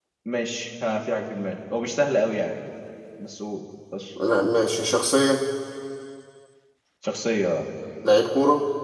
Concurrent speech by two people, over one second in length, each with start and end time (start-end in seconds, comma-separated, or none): none